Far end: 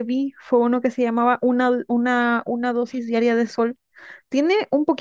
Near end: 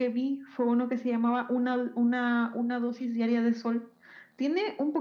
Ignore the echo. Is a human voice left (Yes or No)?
No